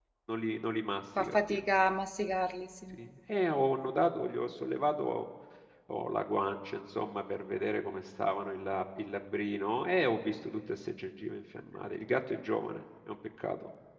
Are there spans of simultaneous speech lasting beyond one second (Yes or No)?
No